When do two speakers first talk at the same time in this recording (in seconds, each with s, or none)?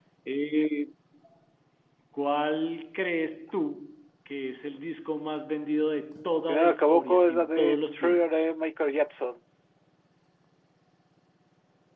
6.5 s